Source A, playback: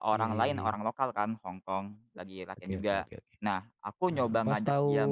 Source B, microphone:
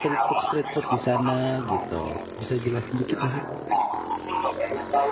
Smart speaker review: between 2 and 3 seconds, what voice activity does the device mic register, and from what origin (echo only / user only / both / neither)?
both